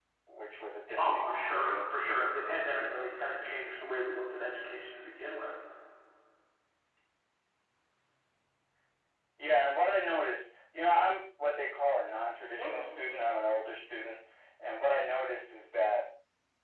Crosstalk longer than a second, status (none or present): present